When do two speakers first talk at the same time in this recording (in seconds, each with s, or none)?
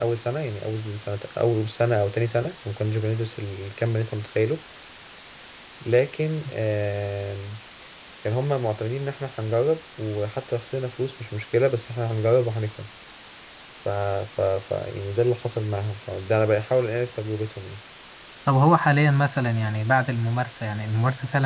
none